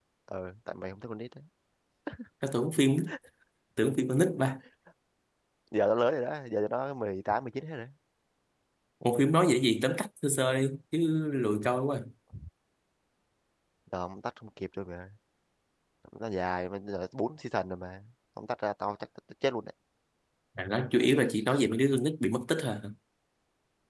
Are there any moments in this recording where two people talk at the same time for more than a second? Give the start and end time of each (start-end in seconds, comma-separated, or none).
none